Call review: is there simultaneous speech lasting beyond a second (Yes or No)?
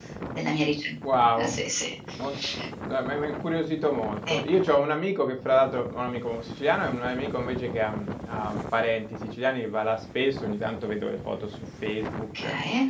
No